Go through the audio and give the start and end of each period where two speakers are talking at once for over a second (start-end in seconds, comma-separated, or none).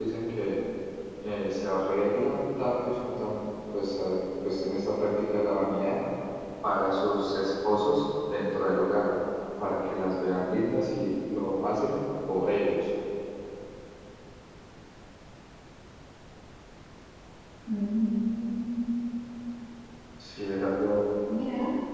none